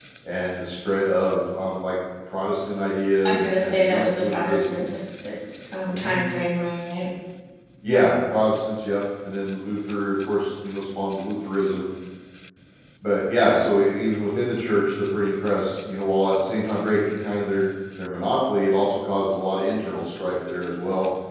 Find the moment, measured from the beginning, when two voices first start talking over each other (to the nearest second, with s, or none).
3 s